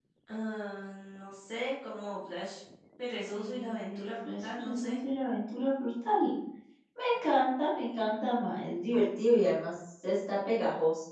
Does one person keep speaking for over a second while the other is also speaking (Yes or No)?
Yes